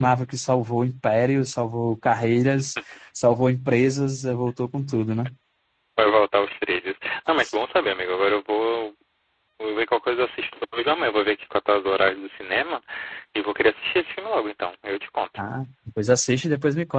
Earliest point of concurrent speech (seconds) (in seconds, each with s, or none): none